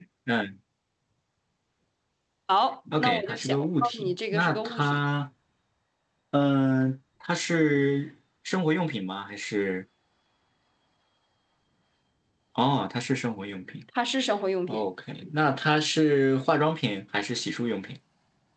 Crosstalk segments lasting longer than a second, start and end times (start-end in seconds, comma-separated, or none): 3.0-5.0